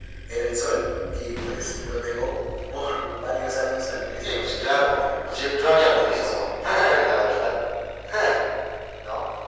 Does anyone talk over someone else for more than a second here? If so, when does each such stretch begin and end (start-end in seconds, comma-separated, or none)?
4.2-6.5